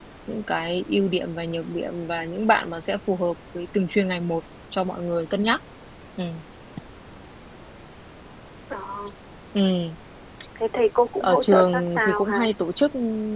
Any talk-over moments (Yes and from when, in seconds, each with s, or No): Yes, from 11.2 s